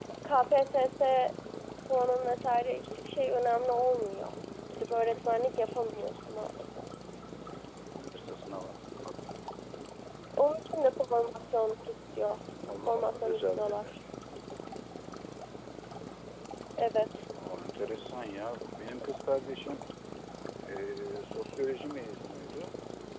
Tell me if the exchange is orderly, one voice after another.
No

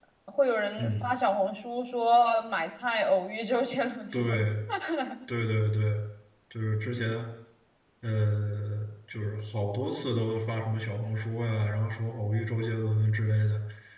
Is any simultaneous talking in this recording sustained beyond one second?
No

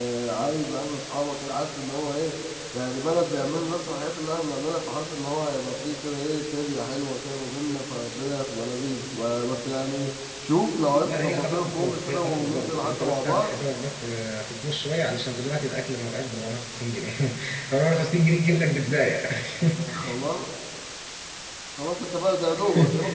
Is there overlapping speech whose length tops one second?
Yes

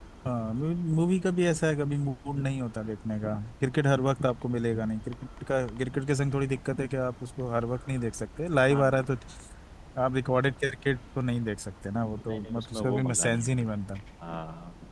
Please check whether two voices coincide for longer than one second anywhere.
Yes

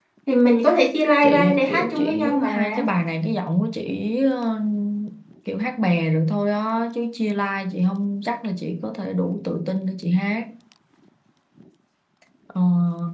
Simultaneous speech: Yes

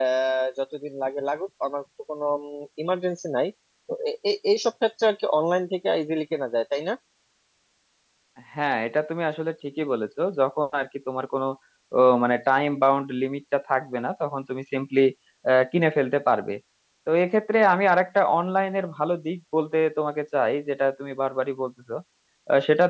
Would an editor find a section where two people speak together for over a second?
No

